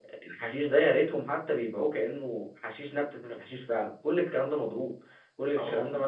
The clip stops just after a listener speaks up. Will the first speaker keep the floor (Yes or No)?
Yes